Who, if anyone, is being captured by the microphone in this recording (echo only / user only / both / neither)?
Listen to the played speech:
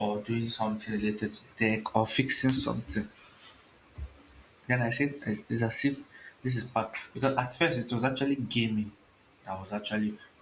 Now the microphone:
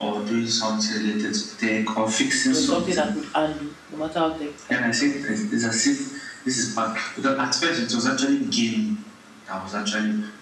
both